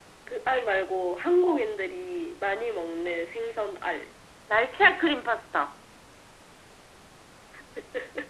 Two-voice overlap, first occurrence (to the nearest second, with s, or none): none